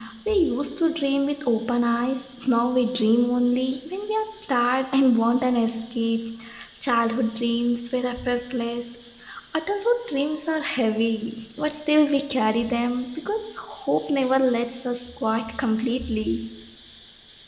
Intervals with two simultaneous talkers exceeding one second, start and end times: none

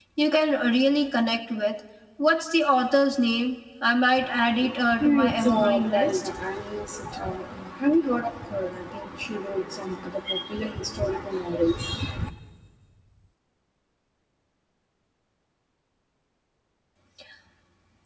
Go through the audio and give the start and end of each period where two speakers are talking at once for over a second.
5.0-6.3

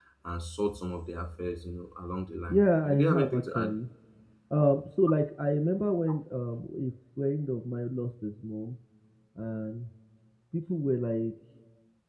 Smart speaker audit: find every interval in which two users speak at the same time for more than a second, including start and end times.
2.5-3.7

